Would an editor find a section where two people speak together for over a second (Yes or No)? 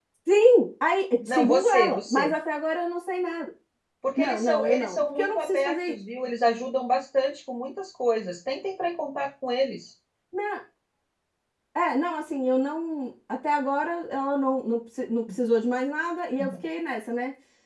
Yes